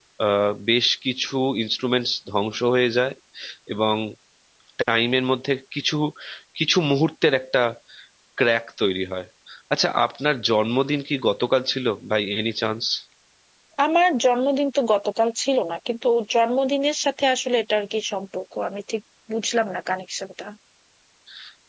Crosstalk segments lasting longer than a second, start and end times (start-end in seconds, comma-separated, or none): none